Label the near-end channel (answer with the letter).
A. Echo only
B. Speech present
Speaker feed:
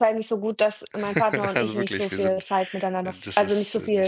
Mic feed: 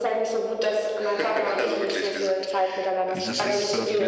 B